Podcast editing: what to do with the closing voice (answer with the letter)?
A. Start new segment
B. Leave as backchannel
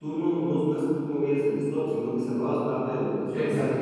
A